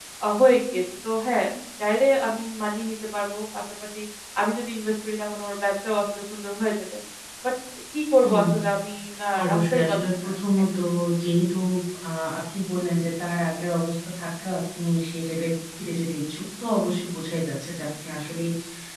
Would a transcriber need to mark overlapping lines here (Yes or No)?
Yes